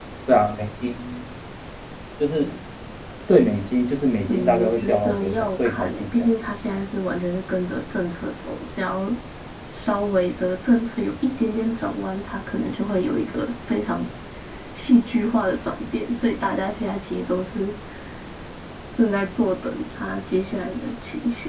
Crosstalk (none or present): present